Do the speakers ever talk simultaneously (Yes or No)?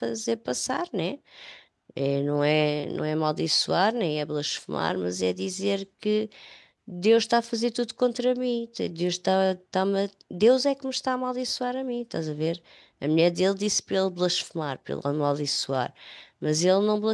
No